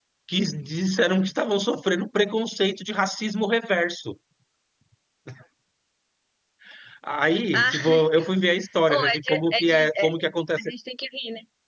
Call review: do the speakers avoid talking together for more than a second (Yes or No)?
No